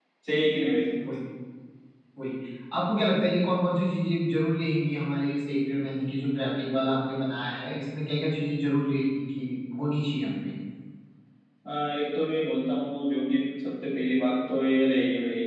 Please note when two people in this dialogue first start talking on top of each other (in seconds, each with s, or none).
none